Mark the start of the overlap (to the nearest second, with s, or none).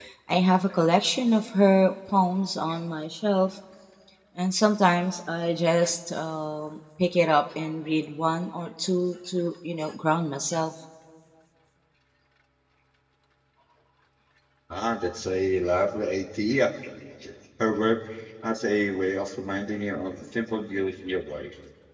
none